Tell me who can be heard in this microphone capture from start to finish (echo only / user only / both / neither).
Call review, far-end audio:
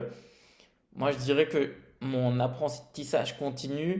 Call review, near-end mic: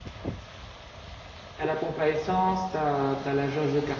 user only